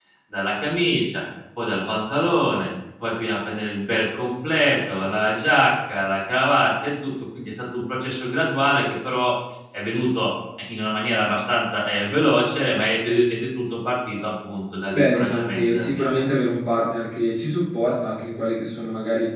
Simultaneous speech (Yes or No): Yes